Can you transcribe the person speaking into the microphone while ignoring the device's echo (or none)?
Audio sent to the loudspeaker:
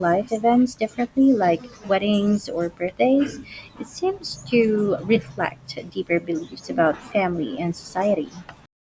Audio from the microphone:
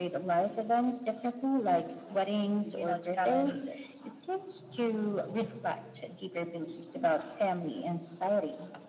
you know, to balance